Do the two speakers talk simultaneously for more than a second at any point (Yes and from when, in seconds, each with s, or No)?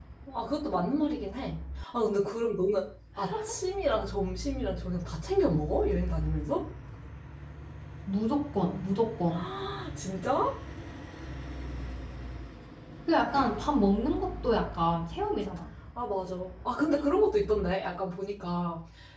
No